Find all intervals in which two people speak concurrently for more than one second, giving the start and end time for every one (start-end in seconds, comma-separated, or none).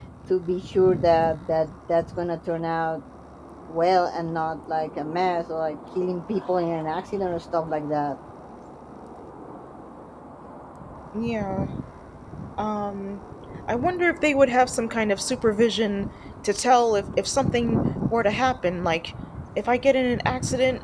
none